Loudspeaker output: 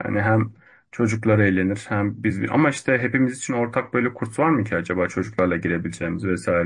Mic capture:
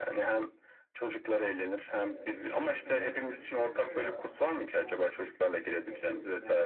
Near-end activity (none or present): present